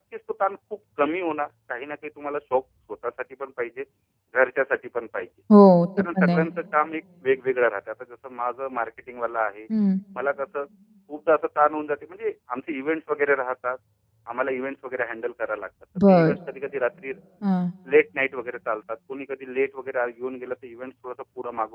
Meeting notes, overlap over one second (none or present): none